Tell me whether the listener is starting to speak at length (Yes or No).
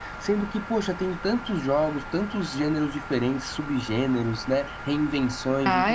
No